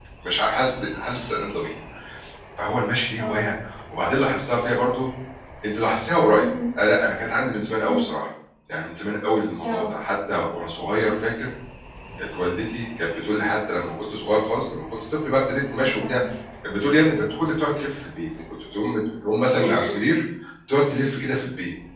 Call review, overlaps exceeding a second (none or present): none